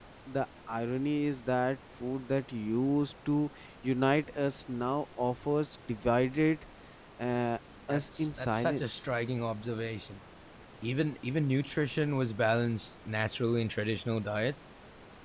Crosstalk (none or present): present